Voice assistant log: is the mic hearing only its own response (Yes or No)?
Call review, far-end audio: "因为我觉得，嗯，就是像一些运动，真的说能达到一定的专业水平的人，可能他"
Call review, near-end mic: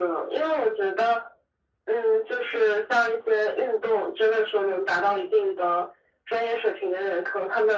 Yes